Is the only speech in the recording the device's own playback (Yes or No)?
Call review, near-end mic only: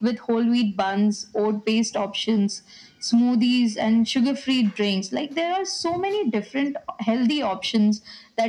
Yes